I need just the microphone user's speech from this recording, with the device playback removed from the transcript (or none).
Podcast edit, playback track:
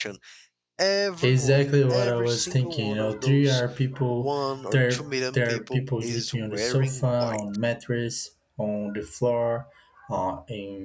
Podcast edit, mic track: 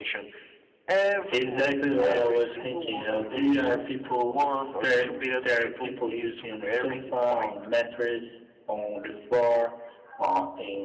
none